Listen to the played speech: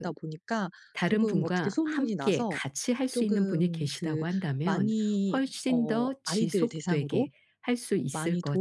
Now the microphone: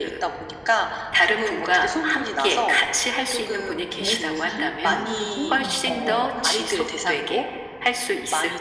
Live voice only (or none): 저 자신도 봉사를 좋은 마음으로 하려다가